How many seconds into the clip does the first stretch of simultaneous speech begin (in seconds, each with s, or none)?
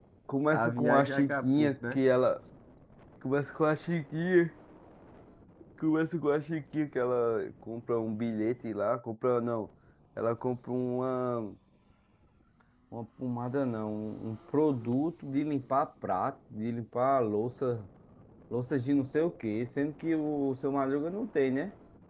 0.5 s